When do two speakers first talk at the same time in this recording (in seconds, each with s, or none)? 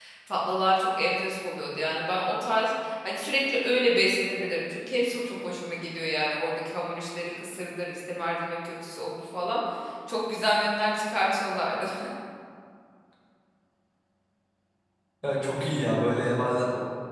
none